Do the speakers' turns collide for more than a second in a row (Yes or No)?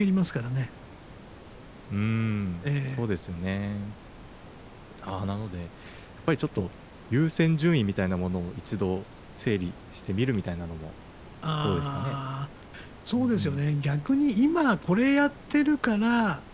No